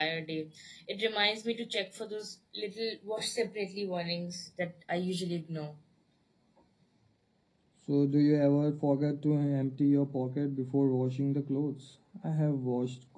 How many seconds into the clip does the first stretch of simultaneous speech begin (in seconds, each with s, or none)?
none